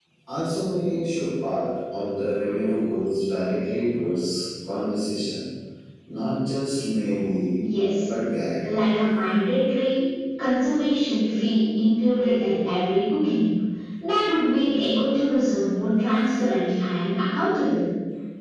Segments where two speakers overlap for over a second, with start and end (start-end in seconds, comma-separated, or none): none